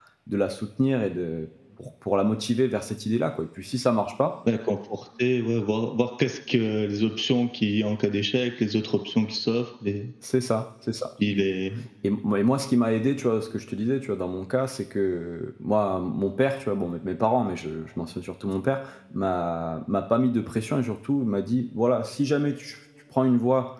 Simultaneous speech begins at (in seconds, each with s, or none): none